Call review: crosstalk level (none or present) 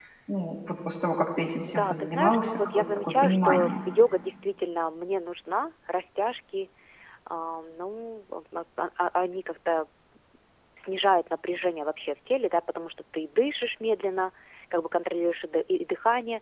present